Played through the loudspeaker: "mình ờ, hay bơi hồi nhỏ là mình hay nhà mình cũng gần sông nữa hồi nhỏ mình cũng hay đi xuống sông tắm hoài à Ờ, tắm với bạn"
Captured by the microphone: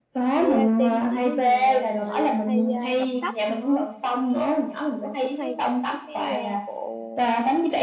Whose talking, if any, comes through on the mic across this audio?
both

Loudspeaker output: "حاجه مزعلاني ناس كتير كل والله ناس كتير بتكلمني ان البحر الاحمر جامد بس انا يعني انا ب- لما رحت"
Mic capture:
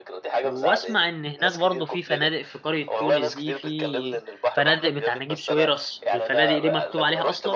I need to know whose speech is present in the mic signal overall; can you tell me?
both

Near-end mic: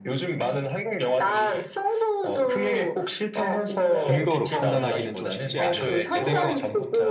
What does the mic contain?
both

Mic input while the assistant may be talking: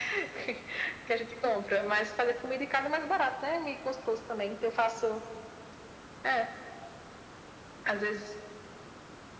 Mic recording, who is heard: echo only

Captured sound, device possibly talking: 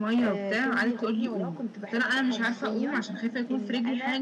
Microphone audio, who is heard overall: both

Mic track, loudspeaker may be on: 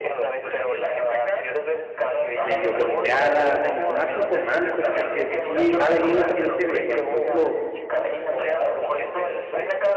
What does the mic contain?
both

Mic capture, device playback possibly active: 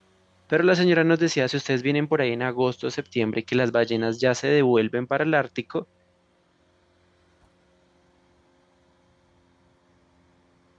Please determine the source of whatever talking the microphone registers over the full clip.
user only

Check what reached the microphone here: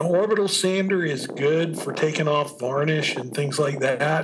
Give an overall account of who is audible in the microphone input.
echo only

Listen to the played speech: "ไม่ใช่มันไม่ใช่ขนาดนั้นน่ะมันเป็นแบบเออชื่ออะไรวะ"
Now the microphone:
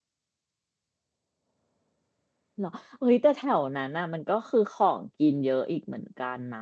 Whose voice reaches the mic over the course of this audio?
user only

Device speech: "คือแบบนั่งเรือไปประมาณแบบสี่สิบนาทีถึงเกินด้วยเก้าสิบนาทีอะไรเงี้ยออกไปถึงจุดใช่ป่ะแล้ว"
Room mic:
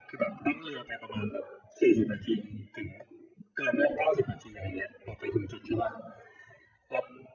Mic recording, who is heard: echo only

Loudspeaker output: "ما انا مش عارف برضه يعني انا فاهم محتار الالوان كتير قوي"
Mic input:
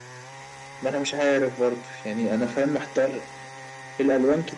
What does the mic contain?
echo only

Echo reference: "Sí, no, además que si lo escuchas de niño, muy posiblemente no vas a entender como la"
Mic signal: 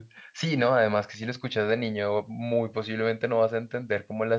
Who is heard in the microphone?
echo only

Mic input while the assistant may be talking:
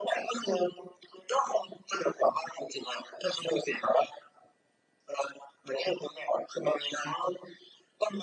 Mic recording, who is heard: echo only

